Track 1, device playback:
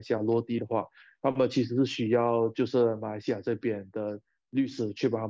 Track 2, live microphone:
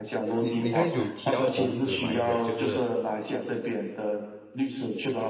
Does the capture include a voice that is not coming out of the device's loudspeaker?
Yes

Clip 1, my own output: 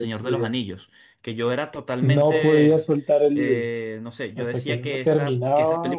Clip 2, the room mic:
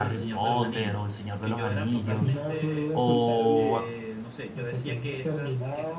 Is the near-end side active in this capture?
Yes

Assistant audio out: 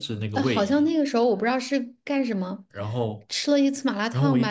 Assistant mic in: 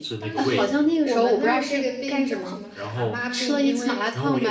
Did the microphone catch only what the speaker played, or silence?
No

